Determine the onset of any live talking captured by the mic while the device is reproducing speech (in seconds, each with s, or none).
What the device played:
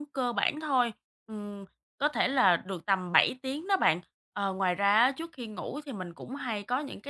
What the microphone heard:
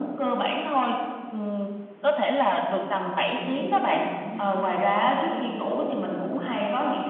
3.4 s